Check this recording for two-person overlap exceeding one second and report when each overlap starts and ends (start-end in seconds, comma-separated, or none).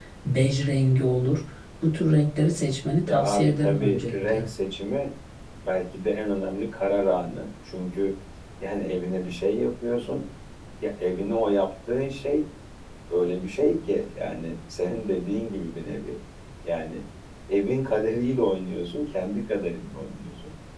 3.1-4.4